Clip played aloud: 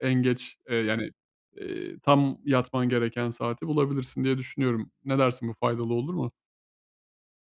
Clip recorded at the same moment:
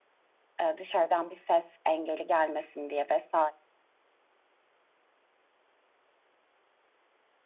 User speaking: Yes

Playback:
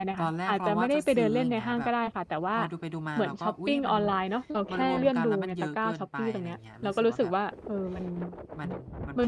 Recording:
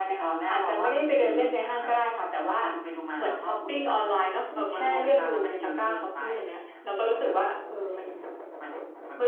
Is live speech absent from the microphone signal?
Yes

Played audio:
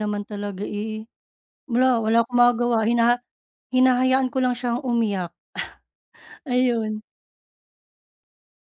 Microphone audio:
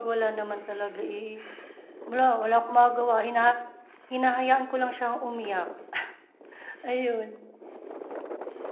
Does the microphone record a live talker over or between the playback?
No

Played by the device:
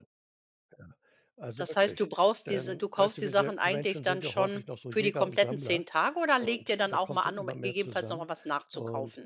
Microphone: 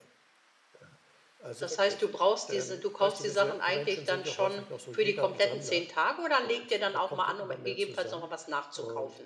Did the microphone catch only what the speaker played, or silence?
Yes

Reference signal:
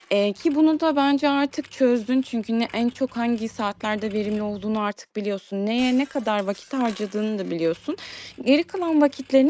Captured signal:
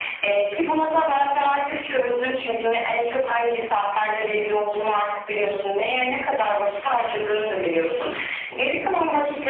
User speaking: No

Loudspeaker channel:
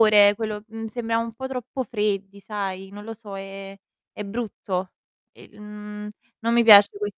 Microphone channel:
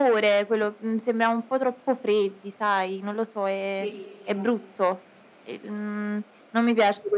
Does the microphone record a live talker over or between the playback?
Yes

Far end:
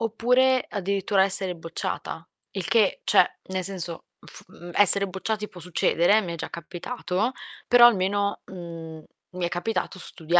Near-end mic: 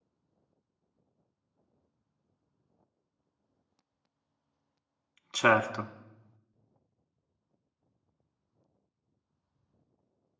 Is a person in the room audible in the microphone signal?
Yes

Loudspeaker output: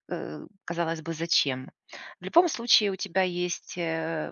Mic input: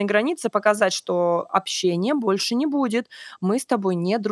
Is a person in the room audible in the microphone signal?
Yes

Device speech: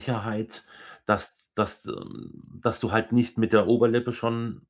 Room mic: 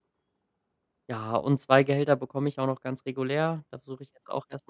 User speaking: Yes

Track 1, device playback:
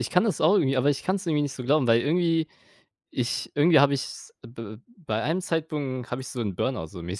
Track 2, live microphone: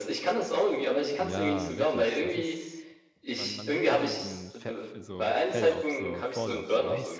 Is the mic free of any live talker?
No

